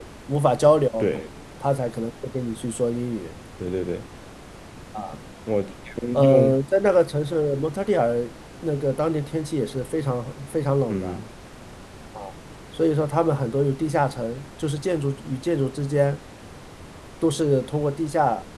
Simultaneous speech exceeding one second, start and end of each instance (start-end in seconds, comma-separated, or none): none